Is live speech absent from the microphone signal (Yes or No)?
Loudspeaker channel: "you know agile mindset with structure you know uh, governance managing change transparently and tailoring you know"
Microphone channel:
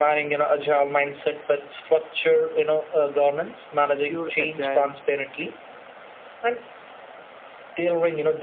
No